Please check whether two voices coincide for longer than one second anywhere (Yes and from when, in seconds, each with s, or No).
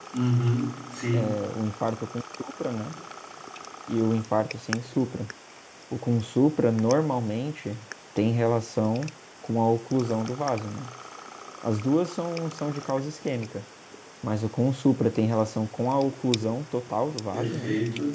No